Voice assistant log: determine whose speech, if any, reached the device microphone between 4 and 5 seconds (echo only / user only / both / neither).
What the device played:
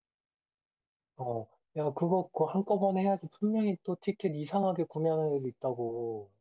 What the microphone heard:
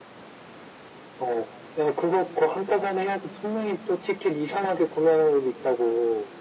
echo only